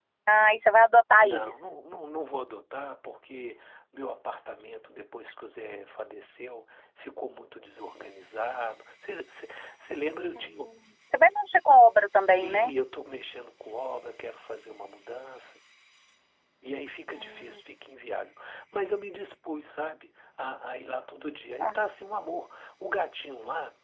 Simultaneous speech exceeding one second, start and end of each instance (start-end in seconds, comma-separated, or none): none